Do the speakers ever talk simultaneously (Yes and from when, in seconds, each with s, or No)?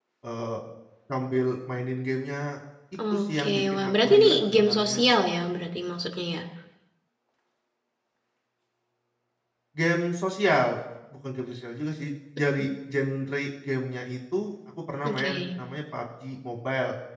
Yes, from 3.2 s